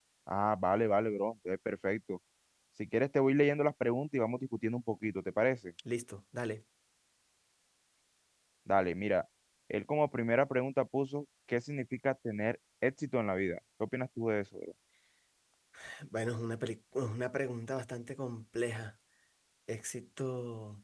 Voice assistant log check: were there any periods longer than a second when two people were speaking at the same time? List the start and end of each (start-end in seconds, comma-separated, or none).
none